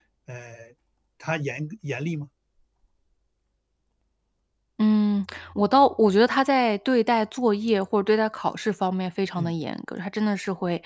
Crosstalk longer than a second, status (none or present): none